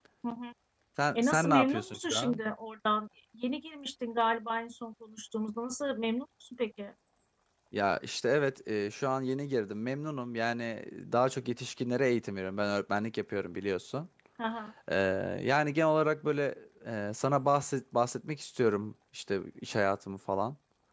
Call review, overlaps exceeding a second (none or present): present